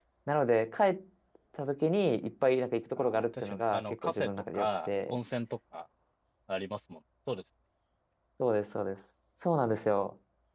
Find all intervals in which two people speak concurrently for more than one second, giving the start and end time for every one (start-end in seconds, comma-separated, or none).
3.0-5.2